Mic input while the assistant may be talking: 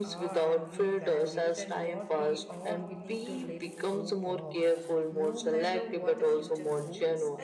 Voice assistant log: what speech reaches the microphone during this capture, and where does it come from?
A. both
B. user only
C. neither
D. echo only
A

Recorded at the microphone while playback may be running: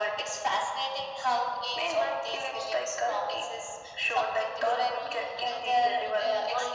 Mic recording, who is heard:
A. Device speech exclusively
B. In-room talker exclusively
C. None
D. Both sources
D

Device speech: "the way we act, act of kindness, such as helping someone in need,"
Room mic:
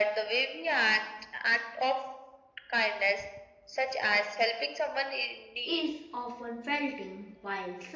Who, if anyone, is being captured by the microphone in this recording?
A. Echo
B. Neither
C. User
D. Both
D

